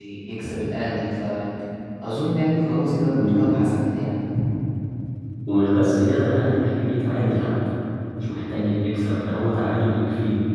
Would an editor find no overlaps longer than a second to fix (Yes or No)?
Yes